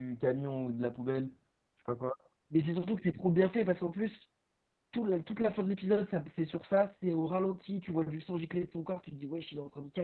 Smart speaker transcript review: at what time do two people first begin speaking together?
none

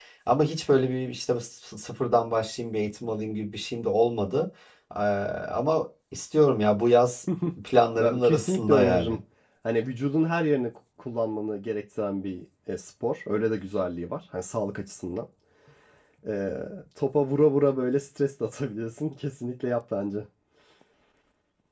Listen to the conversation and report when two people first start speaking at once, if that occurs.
8.0 s

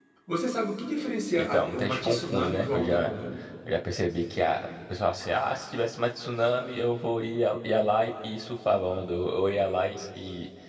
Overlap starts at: 1.4 s

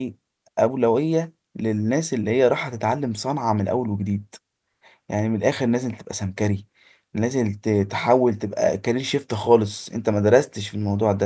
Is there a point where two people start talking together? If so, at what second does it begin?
none

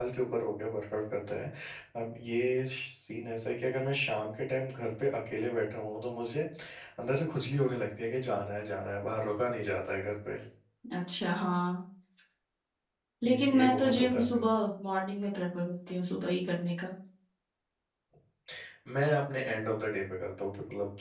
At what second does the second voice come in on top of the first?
13.2 s

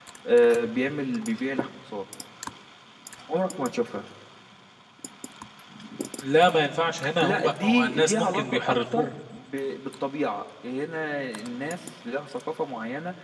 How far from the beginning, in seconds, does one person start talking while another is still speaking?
7.0 s

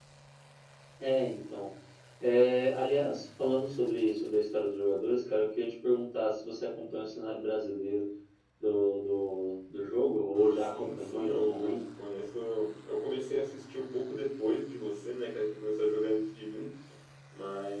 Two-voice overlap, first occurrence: 10.6 s

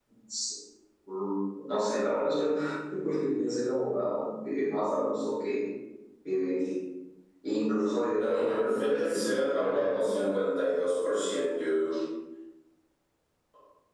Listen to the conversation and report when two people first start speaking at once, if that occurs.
8.2 s

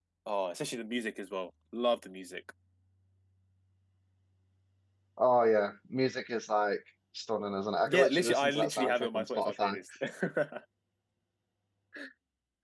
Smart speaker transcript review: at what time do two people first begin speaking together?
7.8 s

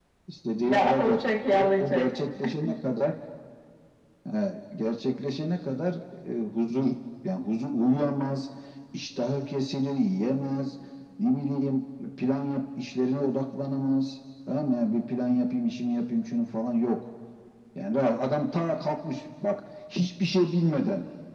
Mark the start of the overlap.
0.6 s

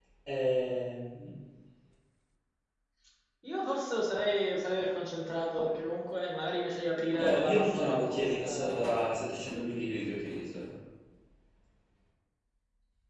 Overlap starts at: 7.2 s

